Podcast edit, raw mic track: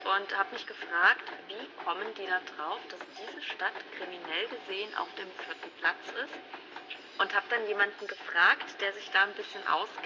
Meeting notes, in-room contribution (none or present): none